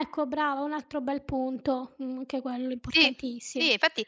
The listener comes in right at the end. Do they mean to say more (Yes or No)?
Yes